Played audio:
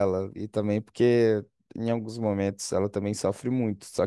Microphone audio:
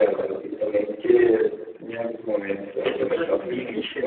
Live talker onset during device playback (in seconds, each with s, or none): 2.7 s